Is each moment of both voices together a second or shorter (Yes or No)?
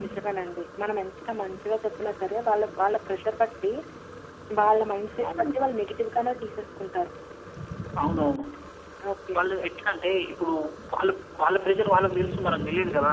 Yes